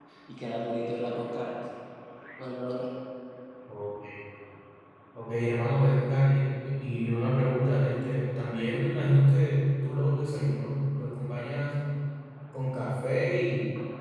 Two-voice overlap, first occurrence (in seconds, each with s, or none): none